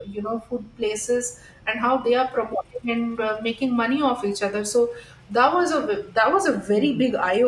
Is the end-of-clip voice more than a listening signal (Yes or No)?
Yes